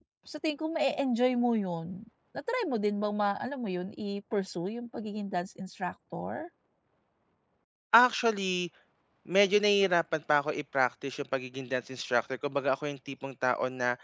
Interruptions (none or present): none